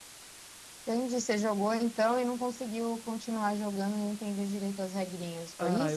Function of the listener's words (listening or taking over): taking over